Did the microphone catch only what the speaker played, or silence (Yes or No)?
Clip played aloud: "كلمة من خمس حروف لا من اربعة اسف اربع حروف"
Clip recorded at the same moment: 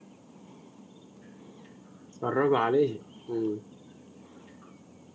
No